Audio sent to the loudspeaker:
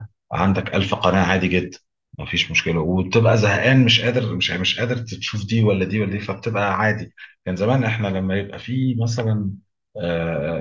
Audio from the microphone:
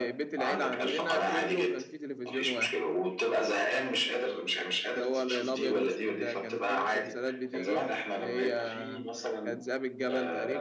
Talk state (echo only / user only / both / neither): both